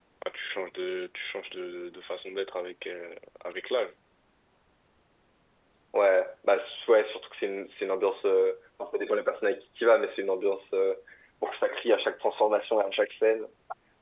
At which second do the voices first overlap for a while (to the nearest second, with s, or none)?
none